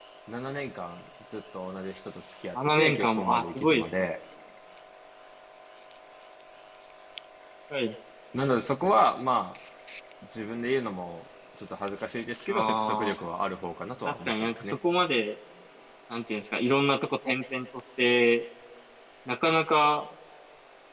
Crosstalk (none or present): present